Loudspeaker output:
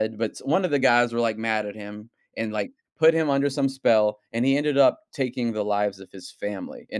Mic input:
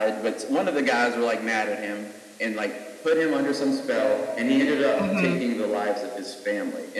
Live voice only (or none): Mhm.